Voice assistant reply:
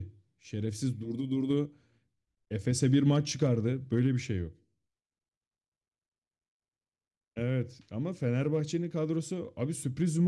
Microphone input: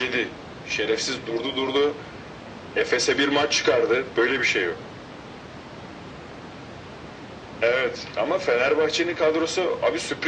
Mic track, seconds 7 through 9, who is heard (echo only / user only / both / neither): echo only